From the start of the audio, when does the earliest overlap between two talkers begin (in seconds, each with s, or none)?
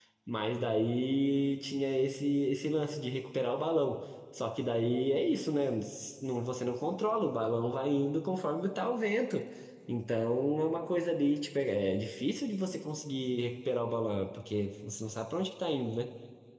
none